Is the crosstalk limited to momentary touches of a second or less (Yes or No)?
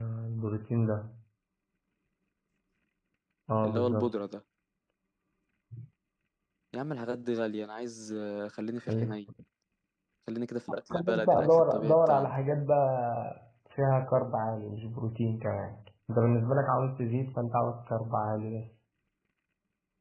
No